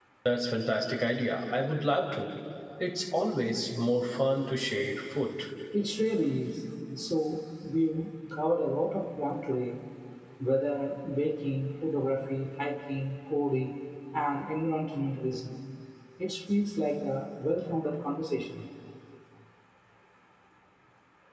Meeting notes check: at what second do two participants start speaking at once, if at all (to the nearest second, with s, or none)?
none